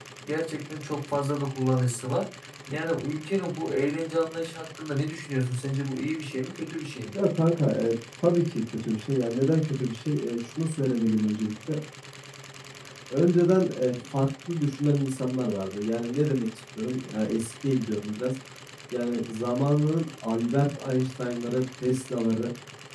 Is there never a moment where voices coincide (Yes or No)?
Yes